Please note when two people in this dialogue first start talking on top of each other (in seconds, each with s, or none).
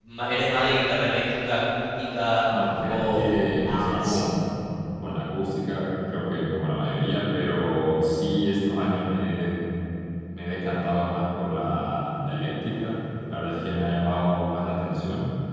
2.8 s